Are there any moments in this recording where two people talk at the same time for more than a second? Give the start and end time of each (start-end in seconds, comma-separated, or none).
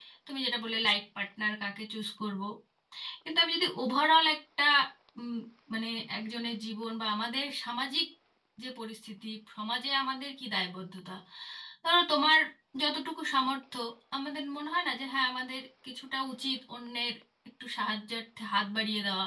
none